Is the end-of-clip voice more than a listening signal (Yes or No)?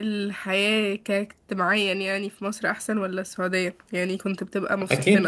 Yes